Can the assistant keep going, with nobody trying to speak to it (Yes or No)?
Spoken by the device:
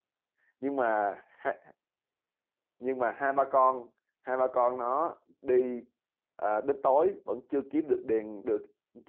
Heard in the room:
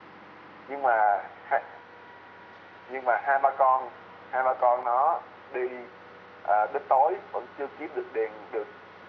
Yes